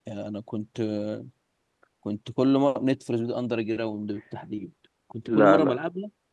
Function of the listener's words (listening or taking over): listening